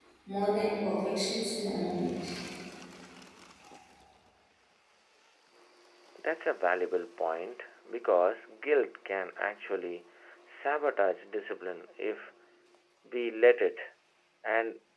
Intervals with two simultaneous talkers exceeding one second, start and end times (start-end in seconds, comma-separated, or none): none